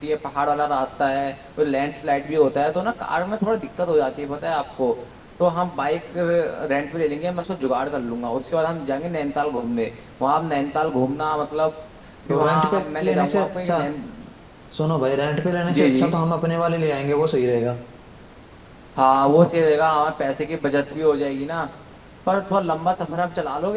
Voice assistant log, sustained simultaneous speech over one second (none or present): present